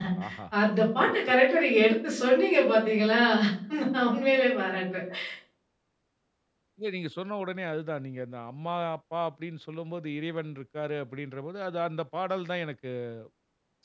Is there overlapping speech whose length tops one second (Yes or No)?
No